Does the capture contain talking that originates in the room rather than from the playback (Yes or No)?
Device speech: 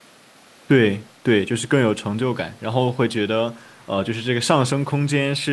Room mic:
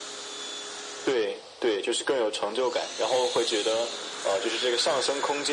No